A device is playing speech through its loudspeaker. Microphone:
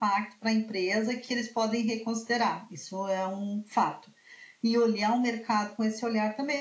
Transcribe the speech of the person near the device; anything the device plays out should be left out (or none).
none